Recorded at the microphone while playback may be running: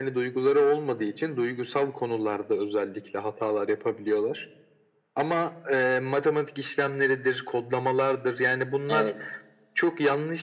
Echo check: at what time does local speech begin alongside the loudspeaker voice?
8.9 s

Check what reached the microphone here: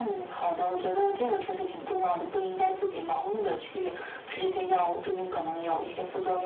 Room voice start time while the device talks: none

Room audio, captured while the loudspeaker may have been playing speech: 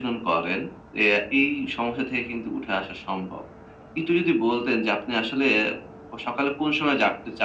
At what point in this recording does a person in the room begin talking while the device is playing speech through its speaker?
none

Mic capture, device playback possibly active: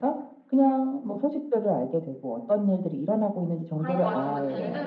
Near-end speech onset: 3.8 s

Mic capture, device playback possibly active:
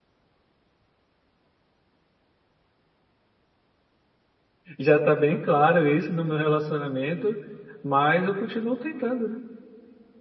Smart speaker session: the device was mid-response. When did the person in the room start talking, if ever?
4.8 s

